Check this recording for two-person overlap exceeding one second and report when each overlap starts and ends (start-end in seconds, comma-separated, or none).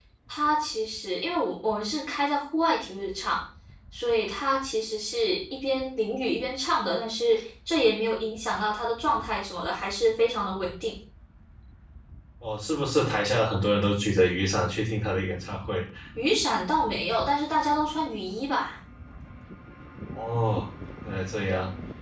none